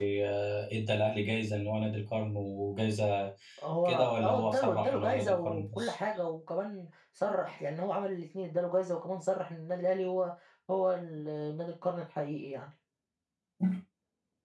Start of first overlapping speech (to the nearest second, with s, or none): 4 s